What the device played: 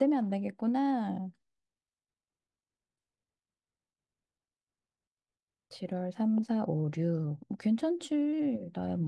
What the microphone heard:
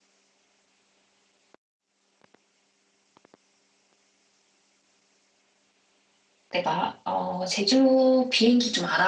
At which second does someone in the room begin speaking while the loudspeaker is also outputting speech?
7 s

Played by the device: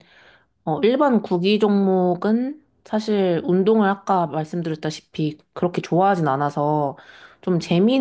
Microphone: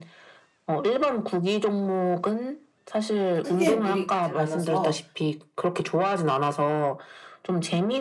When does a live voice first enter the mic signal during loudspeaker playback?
3 s

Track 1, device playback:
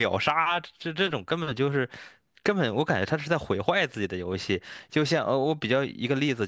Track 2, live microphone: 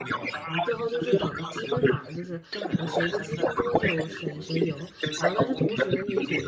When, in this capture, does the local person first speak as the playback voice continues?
0 s

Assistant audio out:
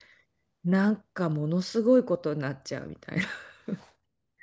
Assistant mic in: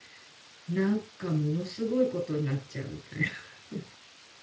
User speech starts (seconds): none

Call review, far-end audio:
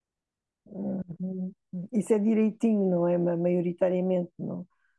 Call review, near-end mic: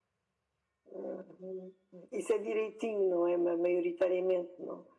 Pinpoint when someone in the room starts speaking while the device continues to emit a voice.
none

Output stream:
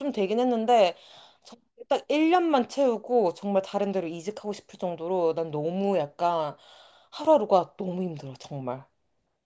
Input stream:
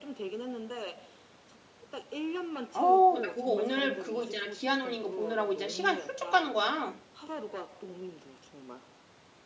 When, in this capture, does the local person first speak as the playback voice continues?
3 s

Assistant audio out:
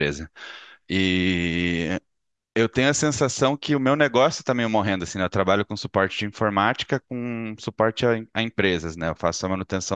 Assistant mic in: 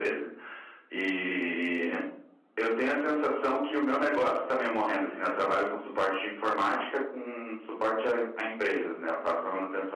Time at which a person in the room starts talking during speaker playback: none

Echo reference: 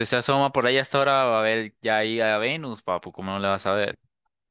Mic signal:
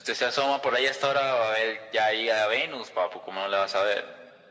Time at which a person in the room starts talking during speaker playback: none

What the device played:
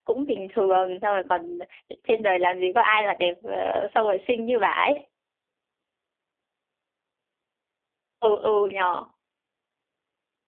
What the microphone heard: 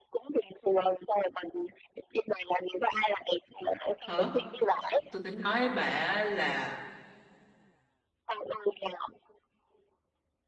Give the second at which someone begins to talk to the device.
4 s

